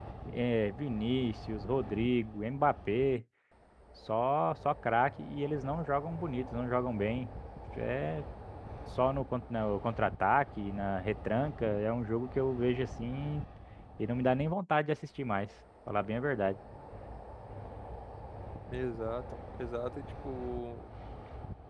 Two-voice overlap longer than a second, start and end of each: none

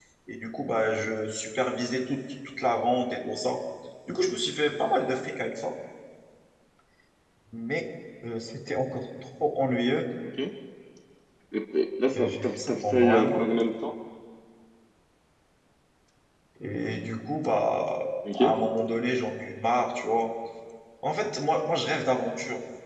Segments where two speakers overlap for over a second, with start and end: 12.1-13.4

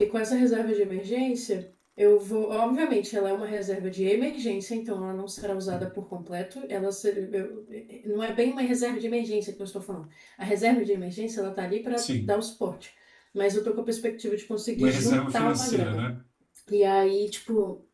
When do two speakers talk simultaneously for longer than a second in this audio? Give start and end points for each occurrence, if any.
14.8-16.0

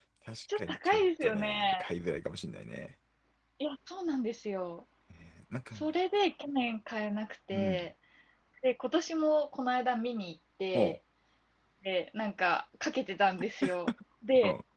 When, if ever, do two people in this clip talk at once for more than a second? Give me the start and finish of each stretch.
0.6-1.9

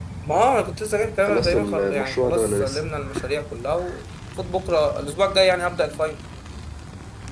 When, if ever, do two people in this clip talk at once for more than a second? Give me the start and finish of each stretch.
1.3-2.8

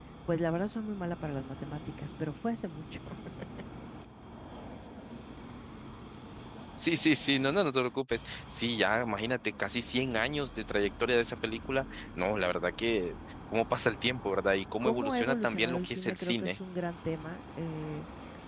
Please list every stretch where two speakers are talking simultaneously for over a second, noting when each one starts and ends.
14.8-16.5

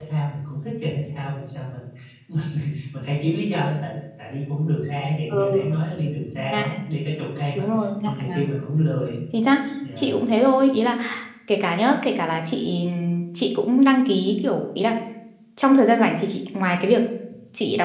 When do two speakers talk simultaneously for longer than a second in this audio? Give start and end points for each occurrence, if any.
none

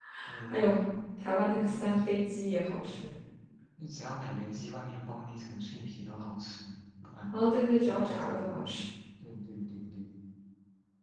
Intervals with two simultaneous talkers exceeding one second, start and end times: 7.3-8.8

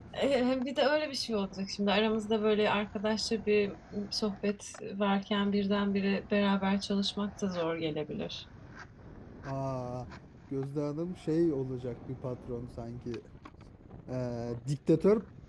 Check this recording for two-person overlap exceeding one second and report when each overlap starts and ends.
none

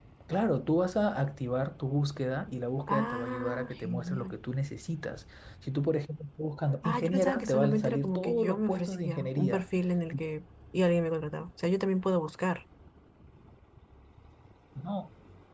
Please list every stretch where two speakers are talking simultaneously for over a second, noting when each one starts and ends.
2.9-4.4, 6.8-9.6

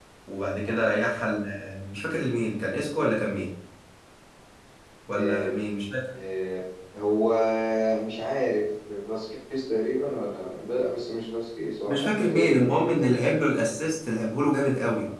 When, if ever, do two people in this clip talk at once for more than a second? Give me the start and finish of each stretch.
11.9-13.2

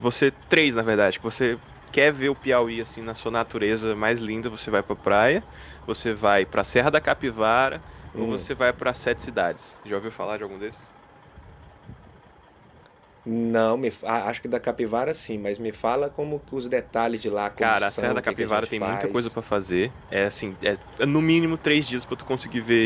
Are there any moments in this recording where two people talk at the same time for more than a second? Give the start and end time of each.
17.6-19.3

